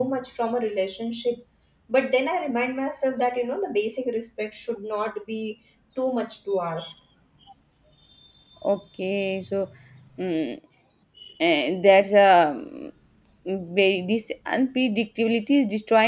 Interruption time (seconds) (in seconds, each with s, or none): none